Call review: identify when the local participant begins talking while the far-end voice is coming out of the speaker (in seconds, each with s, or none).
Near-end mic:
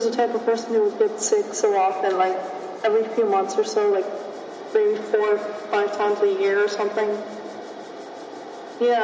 none